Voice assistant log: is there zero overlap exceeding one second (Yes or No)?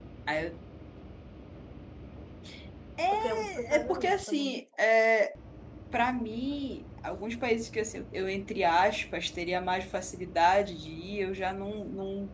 No